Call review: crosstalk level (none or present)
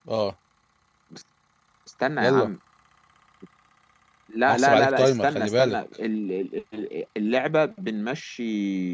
present